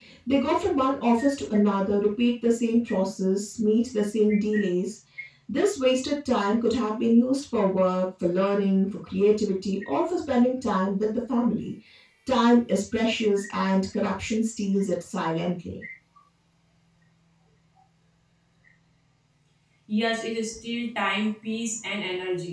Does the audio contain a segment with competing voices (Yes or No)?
No